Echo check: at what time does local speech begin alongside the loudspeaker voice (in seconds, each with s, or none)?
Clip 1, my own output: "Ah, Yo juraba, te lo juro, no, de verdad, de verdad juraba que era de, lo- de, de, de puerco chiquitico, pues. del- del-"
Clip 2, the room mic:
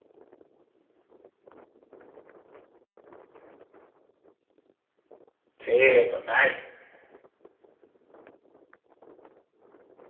5.6 s